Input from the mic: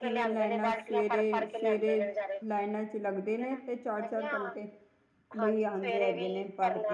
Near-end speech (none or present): present